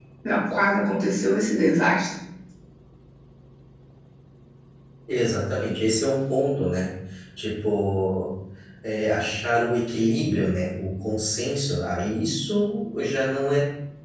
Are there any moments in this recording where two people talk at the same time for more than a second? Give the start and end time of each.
none

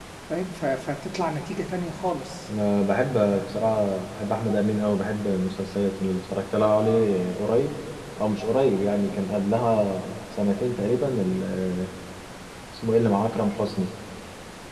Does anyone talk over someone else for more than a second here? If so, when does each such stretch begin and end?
none

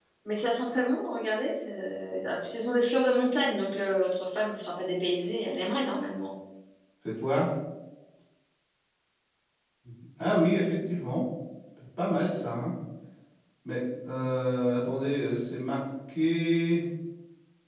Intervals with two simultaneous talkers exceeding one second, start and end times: none

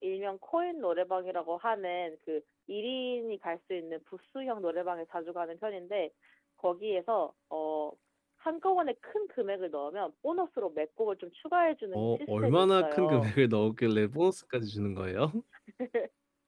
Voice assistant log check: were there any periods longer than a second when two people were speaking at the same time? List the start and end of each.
11.9-13.3

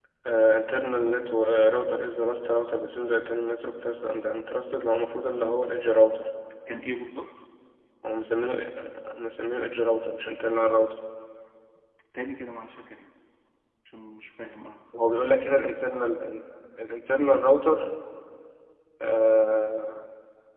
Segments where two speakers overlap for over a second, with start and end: none

